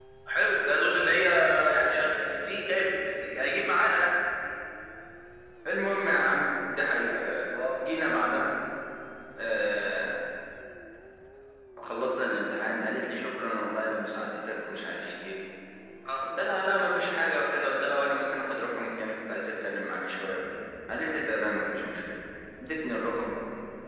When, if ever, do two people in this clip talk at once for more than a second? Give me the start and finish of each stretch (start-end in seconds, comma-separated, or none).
none